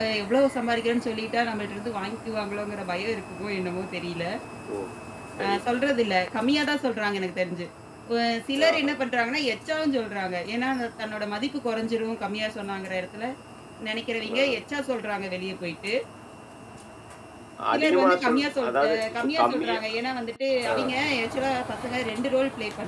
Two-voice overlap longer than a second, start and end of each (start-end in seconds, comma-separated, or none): 17.7-19.8